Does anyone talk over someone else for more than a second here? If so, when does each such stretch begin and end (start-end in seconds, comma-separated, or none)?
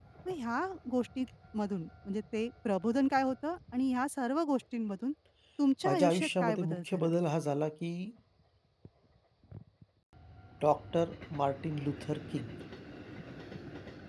5.9-7.1